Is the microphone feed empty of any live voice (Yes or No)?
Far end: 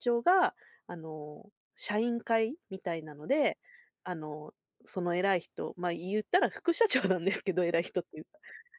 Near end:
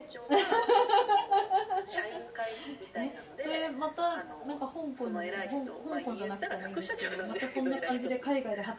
No